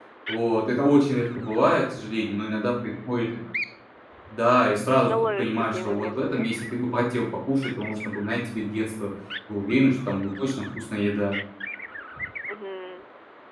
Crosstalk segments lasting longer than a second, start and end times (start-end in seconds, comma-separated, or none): 5.1-6.5